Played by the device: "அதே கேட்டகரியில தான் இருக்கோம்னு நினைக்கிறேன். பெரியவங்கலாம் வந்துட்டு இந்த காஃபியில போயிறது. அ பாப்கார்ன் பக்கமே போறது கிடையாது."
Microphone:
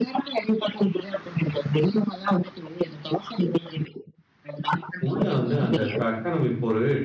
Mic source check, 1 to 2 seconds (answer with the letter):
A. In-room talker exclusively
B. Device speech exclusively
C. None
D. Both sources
B